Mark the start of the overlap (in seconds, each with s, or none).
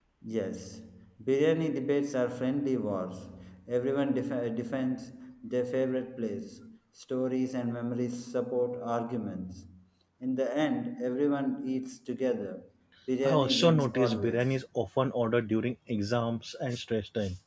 13.2 s